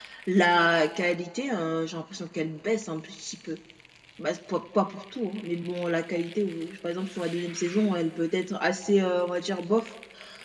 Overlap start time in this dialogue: none

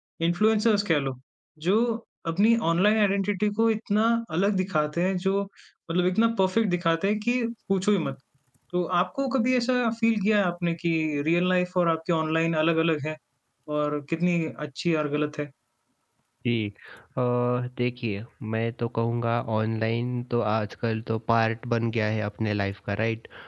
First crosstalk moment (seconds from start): none

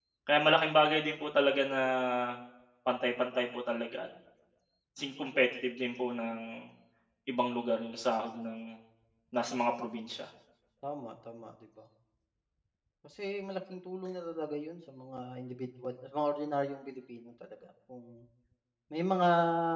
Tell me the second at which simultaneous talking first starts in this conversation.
none

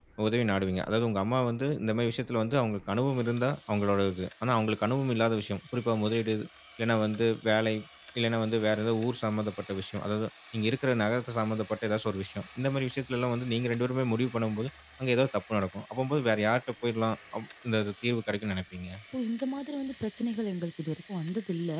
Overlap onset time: none

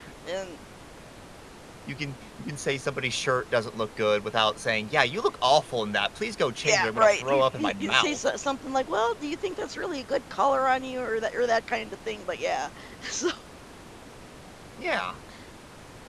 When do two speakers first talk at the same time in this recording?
6.6 s

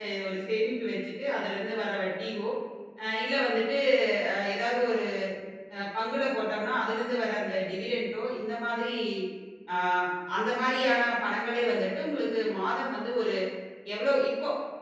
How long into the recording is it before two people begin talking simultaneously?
none

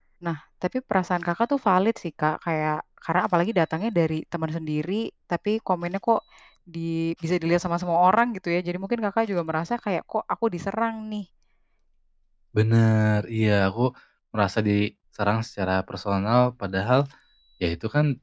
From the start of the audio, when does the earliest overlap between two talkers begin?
none

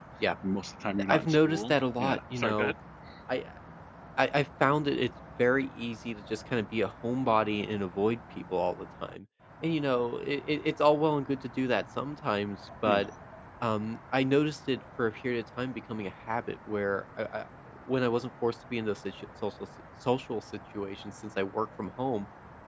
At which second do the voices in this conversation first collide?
1.1 s

